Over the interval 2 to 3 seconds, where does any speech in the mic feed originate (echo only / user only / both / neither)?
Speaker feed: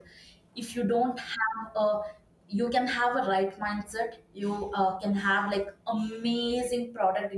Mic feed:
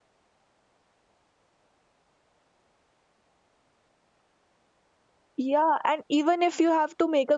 neither